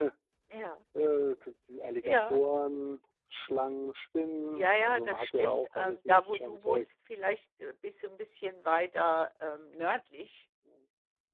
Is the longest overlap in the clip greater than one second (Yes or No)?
Yes